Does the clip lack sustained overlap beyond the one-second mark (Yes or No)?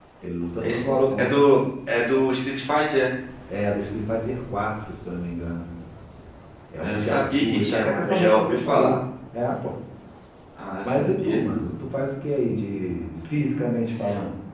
No